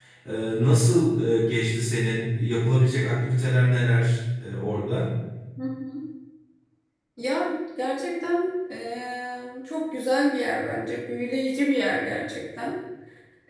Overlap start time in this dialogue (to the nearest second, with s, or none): none